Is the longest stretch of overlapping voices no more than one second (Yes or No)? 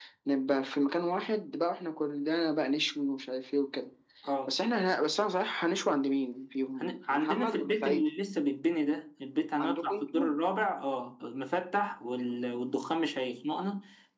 No